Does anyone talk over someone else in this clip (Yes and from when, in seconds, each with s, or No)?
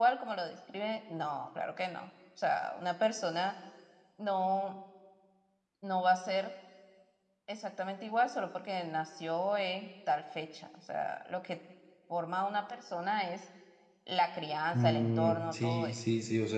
Yes, from 14.7 s